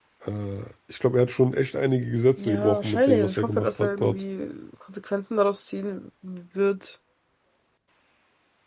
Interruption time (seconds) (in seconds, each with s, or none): 2.4 s